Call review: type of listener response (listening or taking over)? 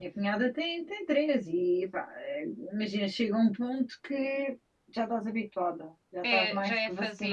taking over